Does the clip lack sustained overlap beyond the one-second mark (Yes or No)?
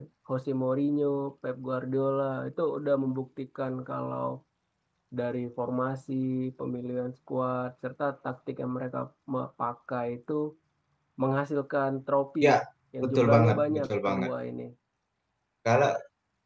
No